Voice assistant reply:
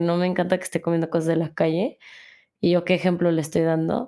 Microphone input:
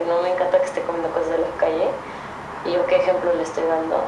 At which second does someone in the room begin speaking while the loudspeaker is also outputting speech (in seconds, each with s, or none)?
none